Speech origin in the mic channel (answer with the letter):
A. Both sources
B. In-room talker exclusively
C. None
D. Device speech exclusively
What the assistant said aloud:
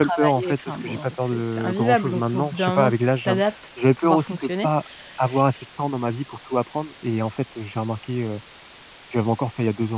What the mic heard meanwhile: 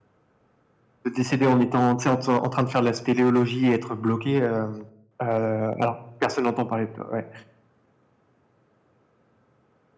B